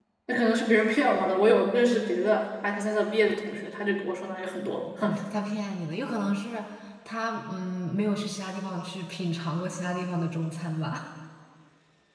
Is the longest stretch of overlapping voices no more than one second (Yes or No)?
Yes